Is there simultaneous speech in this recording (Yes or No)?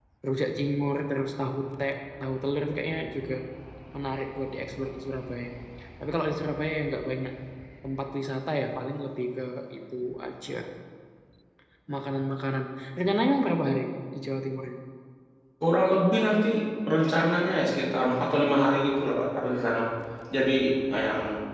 No